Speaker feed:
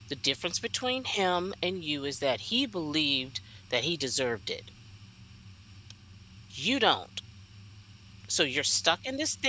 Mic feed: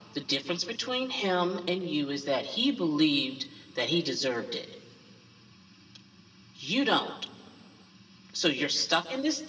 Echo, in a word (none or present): present